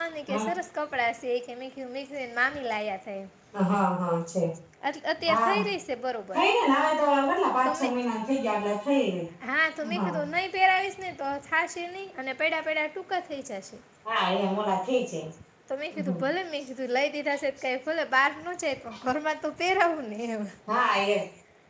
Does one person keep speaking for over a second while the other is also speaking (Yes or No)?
No